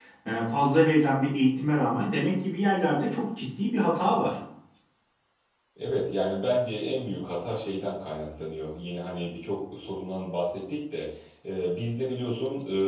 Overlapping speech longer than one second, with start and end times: none

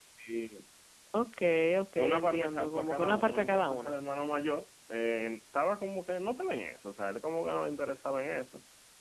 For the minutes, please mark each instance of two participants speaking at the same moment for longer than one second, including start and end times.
2.0-3.9

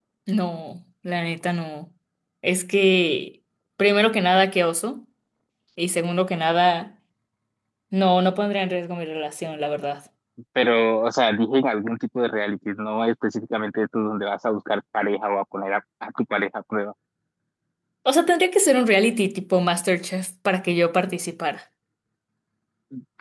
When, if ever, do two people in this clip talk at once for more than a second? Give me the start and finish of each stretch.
none

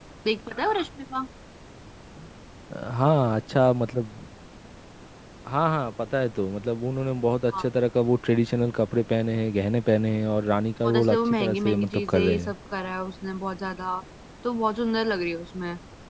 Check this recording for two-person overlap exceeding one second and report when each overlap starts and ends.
10.8-12.5

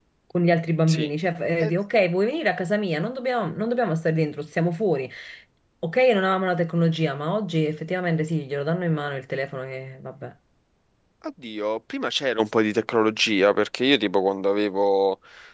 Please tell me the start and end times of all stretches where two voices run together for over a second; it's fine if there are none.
none

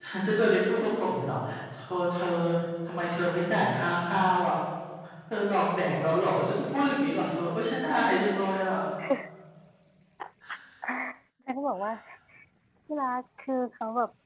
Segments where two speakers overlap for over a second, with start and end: none

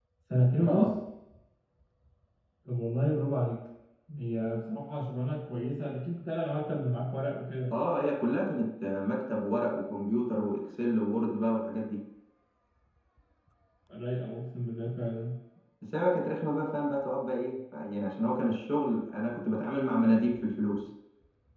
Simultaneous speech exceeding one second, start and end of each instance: none

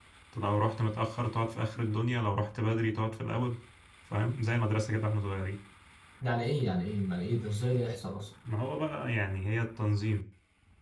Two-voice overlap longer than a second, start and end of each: none

